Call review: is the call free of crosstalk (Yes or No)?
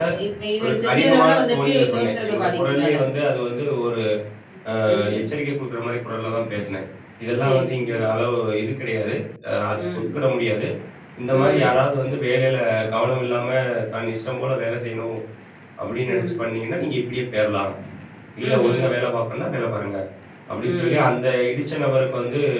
No